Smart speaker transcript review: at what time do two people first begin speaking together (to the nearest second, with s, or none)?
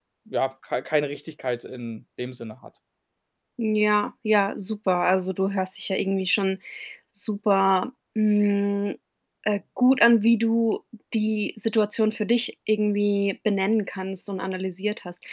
none